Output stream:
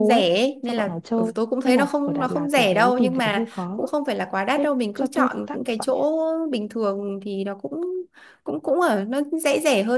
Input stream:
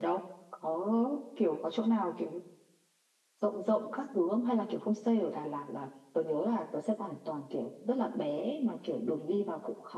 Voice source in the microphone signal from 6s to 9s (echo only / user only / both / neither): user only